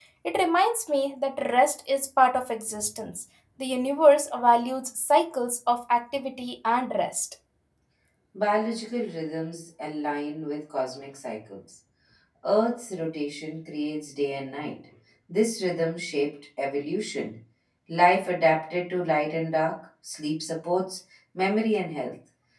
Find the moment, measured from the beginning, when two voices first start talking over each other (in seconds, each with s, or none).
none